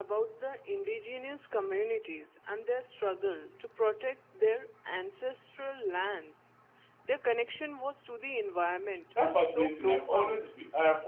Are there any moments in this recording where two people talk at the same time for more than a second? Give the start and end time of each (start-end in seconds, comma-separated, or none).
9.3-10.5